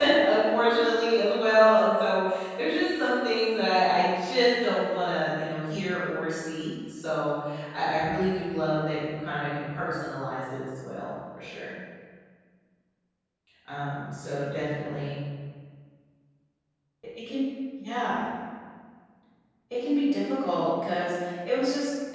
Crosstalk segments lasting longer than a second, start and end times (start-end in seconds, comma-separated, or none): none